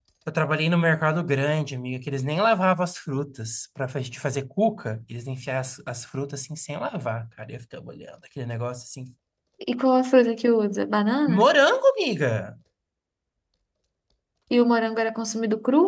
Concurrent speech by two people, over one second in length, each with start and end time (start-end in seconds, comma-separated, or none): none